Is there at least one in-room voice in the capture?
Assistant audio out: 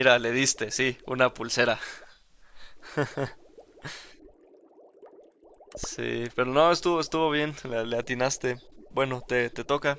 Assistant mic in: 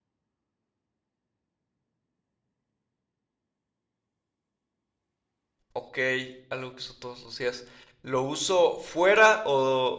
Yes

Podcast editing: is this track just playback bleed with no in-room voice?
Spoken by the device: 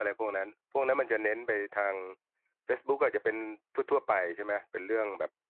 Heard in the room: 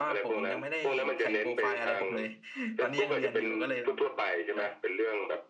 No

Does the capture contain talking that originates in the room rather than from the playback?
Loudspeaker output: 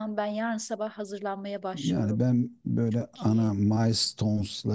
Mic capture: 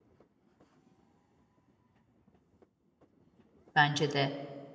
Yes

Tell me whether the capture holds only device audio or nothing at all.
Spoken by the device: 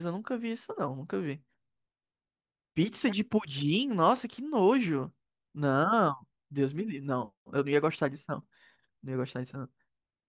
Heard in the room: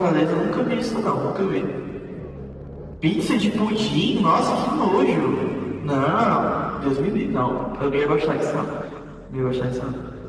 Yes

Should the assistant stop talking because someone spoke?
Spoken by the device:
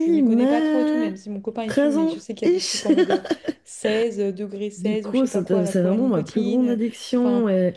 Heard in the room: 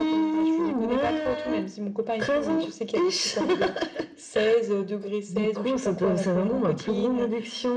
No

